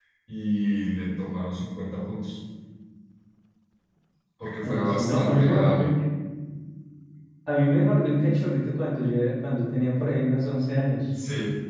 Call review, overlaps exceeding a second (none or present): present